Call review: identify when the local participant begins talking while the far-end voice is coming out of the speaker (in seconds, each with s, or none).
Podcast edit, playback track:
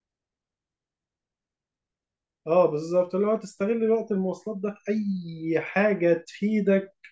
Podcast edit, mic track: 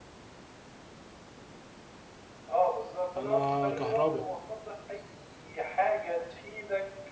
3.1 s